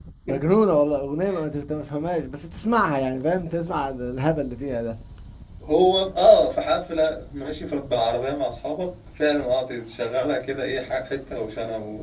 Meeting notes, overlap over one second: none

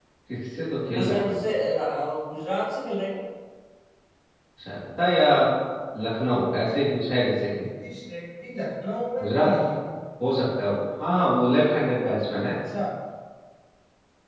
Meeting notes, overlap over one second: none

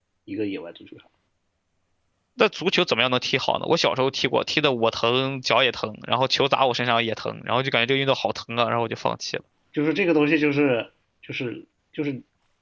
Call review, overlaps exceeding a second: none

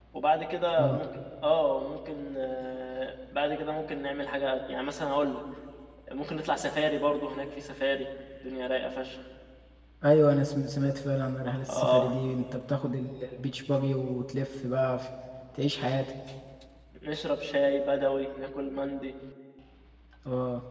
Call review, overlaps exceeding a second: none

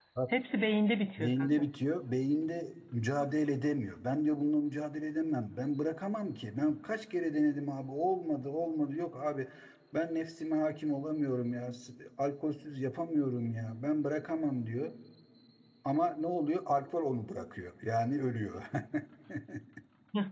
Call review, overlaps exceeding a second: none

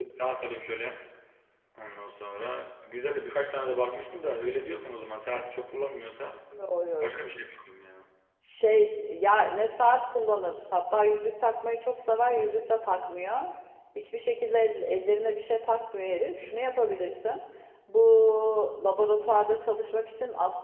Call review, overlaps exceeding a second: none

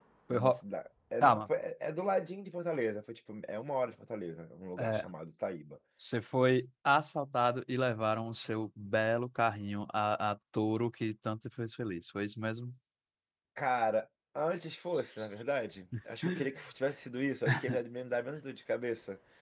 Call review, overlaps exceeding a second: none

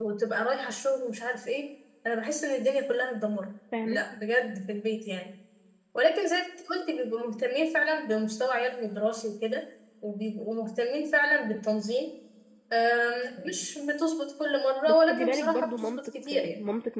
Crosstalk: present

